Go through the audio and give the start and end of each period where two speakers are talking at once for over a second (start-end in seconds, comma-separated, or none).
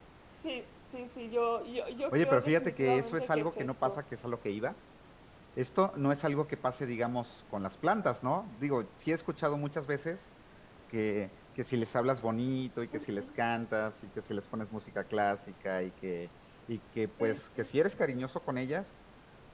2.1-4.0